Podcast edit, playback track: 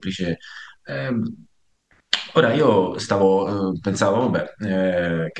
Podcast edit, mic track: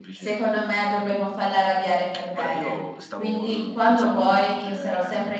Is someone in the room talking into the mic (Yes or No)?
Yes